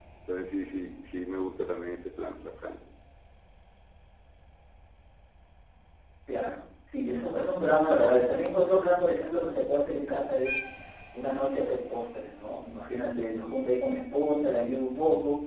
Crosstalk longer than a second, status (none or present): none